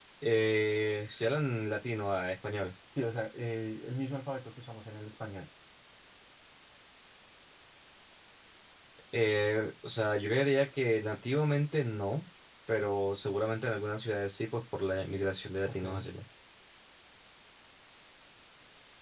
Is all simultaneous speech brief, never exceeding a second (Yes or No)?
Yes